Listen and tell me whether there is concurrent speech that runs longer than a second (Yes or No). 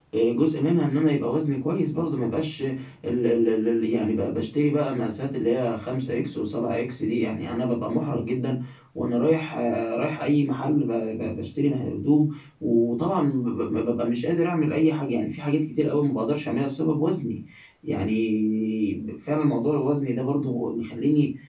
No